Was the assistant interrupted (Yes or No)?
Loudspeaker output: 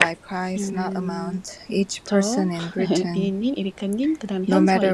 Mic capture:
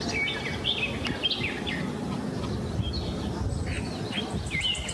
No